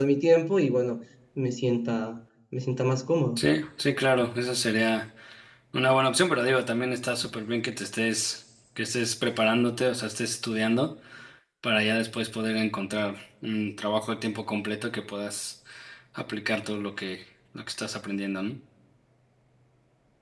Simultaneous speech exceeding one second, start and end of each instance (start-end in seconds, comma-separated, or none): none